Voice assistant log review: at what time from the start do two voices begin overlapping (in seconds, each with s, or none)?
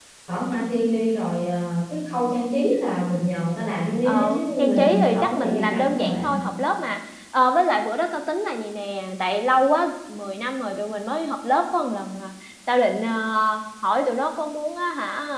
4.0 s